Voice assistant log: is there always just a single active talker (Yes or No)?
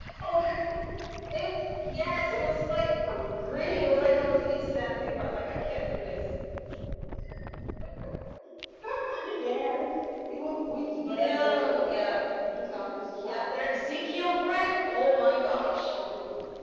No